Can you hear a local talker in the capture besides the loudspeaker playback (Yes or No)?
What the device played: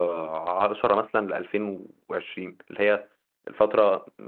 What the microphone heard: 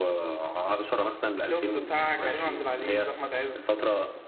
Yes